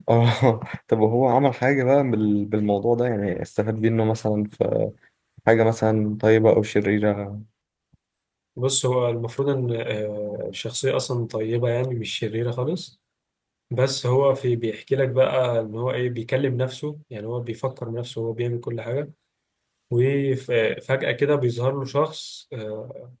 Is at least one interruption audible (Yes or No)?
No